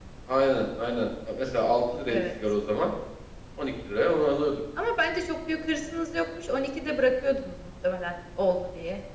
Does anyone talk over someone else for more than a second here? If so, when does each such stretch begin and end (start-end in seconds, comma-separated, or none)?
none